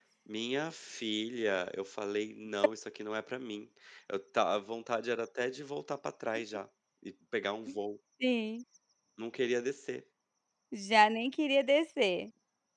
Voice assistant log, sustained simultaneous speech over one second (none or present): none